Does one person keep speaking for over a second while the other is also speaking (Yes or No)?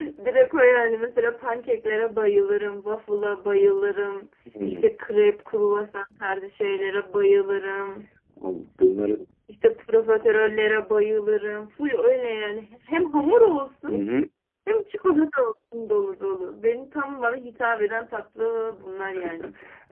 No